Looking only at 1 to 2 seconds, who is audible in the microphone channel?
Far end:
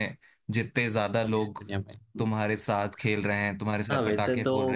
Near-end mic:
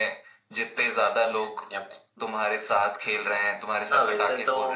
echo only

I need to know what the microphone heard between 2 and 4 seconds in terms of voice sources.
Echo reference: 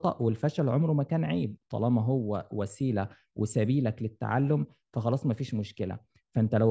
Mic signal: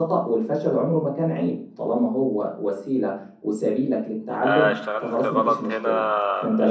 echo only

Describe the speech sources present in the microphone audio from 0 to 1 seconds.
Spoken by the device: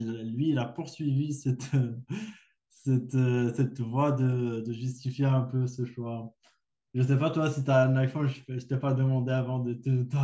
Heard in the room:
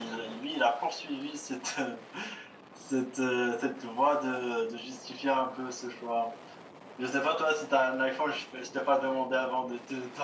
echo only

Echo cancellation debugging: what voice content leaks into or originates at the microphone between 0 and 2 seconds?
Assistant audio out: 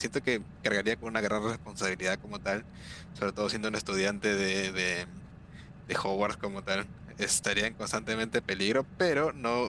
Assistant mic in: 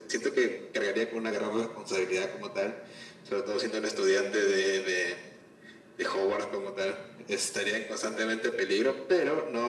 echo only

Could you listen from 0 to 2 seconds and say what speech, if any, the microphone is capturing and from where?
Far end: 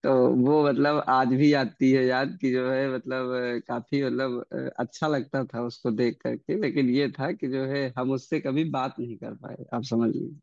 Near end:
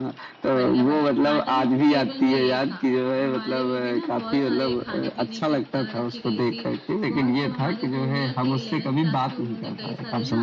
both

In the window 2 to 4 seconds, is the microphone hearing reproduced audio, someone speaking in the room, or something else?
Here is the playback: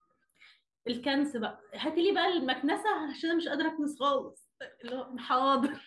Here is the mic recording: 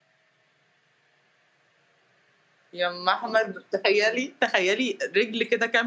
user only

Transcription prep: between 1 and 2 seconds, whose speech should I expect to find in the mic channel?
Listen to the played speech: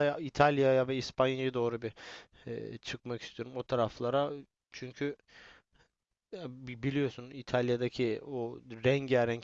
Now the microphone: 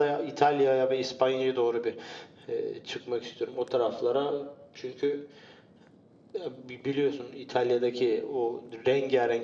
echo only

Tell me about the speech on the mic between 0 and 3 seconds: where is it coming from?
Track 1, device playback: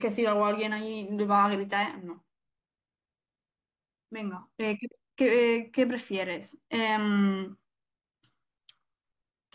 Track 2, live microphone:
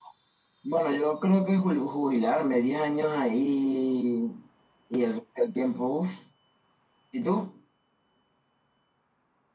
user only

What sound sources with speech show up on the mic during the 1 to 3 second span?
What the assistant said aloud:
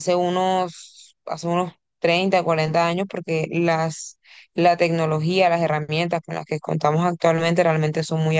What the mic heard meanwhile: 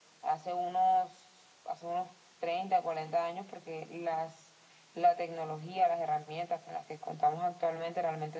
echo only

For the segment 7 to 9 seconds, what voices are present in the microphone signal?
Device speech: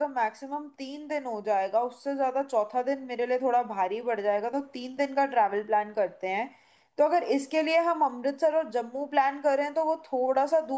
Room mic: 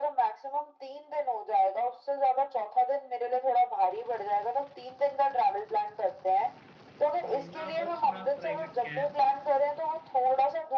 both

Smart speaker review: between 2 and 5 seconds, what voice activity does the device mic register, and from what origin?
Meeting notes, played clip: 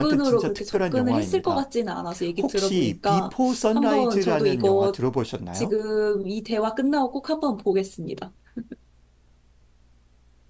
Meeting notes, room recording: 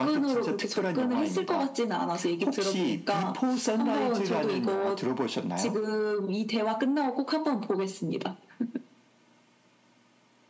echo only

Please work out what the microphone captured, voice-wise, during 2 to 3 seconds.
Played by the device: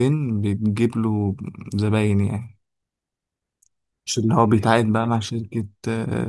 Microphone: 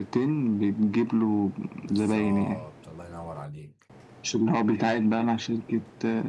both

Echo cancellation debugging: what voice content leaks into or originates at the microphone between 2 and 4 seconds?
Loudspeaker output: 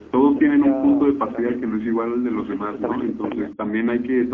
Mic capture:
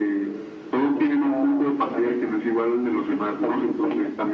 echo only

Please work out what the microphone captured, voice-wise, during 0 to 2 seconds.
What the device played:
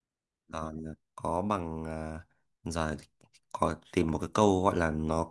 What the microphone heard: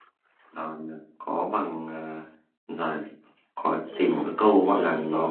echo only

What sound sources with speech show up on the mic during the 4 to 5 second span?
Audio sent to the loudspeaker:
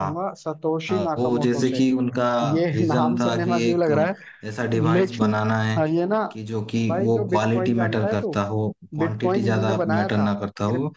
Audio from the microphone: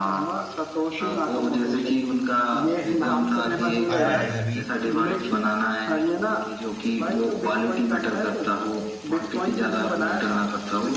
both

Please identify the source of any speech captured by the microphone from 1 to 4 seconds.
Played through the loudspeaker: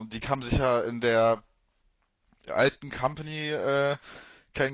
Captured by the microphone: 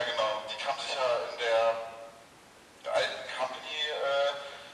echo only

